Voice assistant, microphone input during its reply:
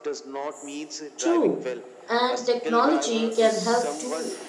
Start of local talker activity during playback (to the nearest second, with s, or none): 1 s